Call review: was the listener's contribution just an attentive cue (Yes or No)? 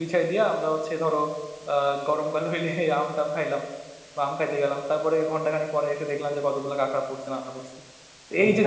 Yes